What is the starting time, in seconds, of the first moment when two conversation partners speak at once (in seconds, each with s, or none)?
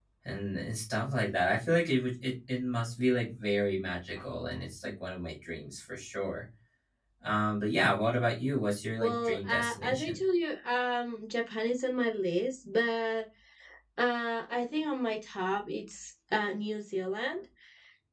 9.0 s